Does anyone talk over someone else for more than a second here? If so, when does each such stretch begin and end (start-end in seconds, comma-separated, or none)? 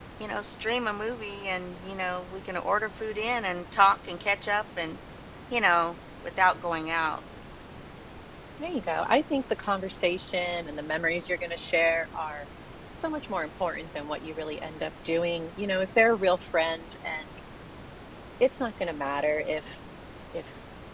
none